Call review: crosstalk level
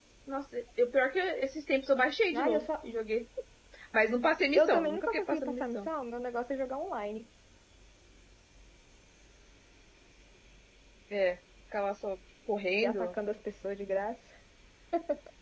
present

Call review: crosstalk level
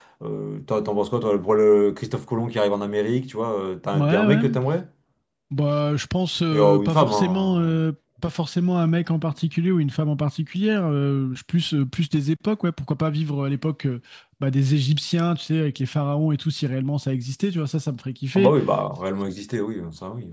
present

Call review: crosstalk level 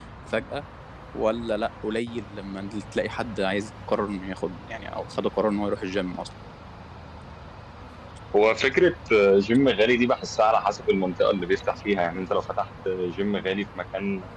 none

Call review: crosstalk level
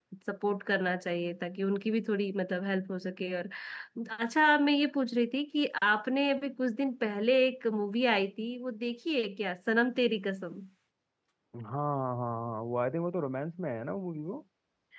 none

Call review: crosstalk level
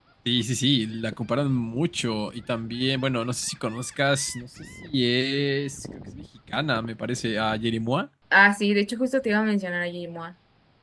none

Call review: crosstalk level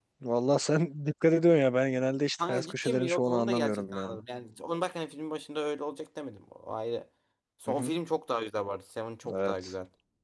present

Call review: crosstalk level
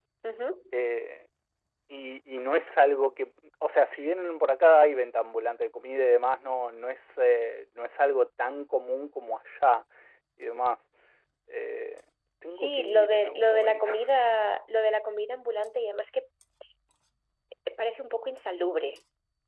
present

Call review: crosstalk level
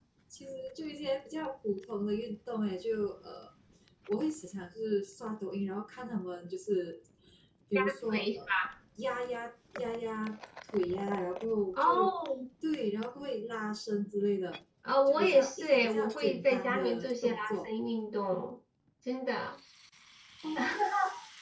present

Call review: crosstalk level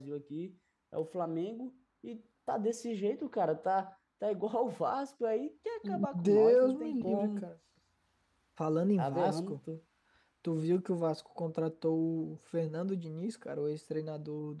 present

